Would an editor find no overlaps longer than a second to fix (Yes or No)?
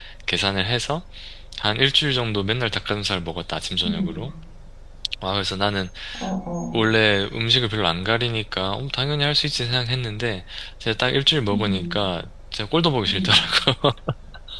Yes